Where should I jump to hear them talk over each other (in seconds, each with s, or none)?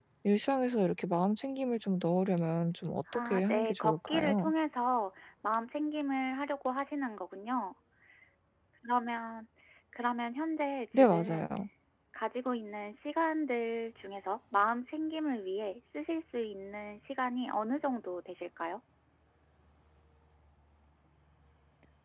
3.1 s